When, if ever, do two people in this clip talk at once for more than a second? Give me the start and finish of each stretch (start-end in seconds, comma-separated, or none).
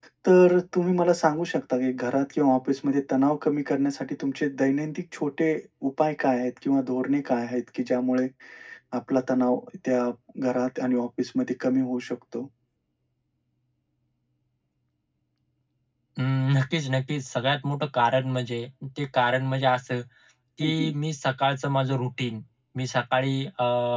none